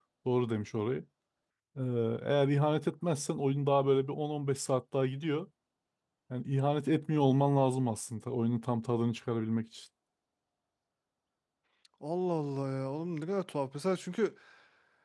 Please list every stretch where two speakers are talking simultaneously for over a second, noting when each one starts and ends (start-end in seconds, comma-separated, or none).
none